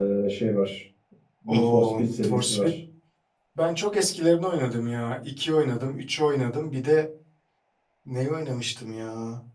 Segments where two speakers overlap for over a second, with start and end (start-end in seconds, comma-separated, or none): 1.5-2.7